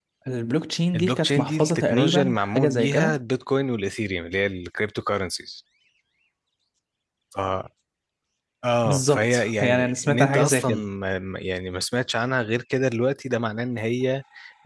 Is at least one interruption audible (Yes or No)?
Yes